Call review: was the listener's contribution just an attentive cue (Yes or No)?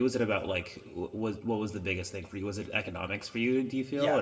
No